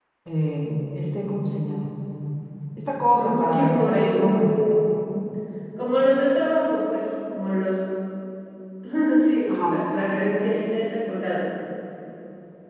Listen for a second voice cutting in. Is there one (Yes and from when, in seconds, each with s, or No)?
Yes, from 3.2 s